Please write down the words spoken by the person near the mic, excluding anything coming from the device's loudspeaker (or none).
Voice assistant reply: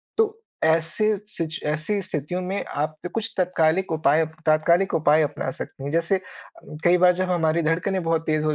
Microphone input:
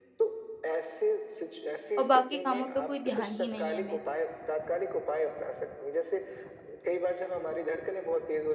और बाकी कामों पर कोई ध्यान ही नहीं है मेरा।